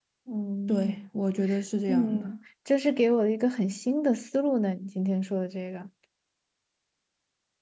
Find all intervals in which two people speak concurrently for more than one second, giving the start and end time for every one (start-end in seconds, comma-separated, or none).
none